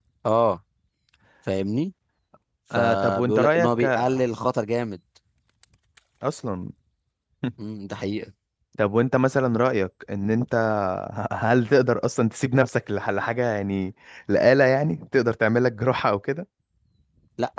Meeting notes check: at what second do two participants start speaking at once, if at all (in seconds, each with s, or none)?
2.8 s